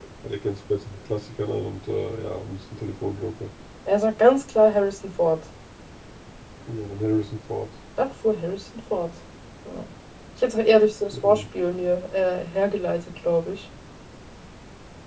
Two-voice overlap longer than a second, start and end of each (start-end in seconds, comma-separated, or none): none